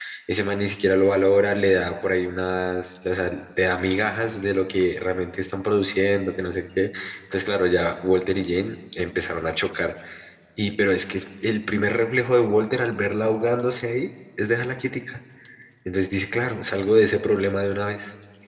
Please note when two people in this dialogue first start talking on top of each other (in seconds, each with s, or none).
none